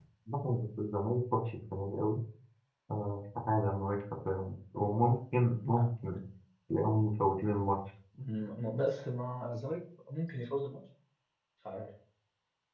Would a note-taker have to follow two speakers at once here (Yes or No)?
No